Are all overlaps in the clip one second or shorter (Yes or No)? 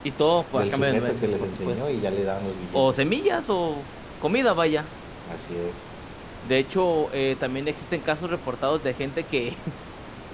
No